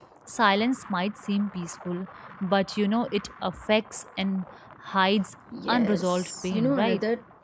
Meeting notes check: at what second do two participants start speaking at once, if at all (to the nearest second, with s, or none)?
6 s